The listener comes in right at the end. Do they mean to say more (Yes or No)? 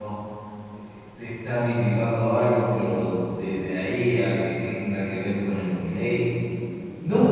Yes